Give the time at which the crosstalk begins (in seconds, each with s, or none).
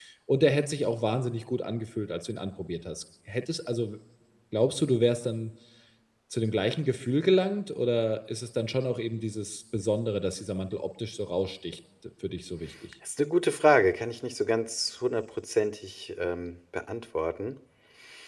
none